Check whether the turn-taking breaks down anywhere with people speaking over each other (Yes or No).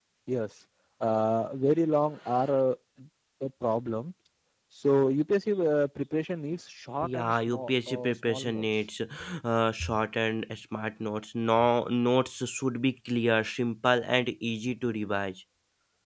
Yes